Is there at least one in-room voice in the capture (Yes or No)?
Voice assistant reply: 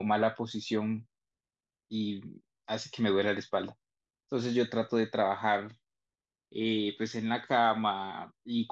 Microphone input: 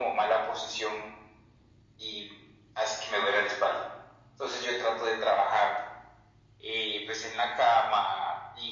No